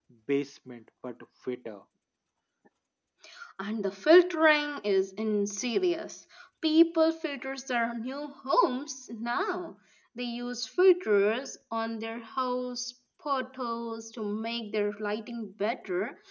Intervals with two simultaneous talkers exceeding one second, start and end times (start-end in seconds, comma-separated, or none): none